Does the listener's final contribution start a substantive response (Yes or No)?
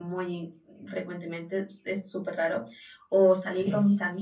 No